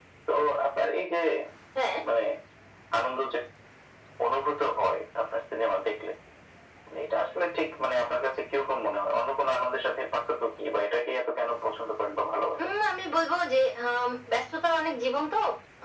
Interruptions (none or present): none